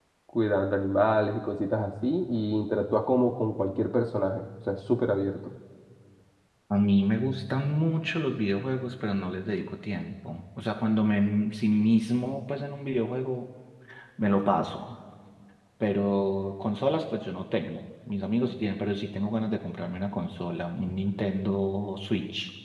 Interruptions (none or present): none